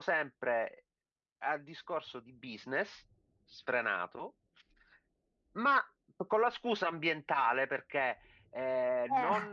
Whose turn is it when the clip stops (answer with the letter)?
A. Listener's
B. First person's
B